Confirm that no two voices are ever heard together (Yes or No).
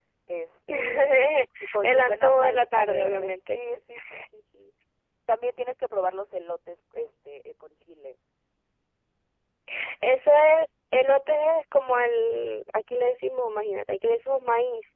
No